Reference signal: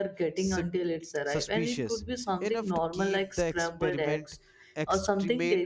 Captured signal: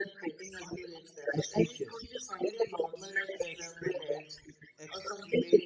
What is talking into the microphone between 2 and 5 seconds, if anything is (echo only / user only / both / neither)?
echo only